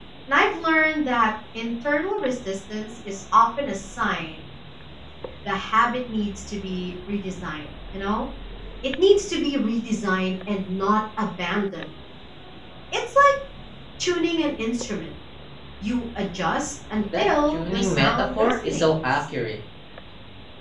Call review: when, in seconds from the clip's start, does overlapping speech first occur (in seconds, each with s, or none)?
17.1 s